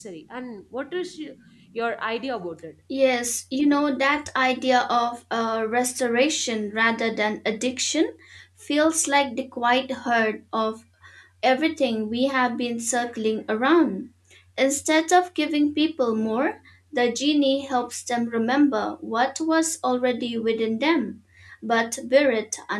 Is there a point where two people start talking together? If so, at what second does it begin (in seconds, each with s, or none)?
none